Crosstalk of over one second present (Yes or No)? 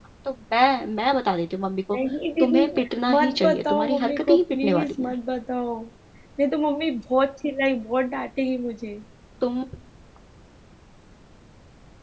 Yes